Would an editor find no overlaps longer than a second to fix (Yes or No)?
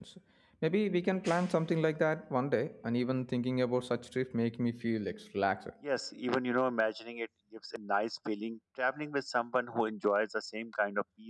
Yes